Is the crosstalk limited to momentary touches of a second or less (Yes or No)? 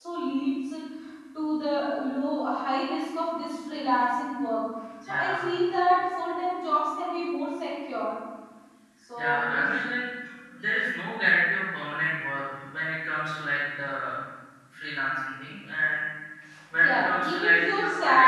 No